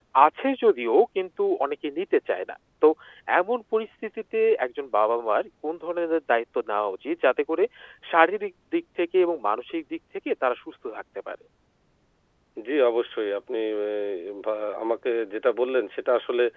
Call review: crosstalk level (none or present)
none